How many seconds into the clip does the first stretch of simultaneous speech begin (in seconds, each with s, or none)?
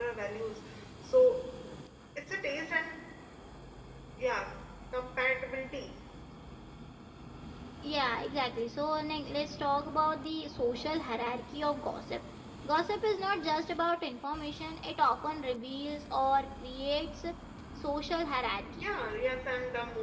none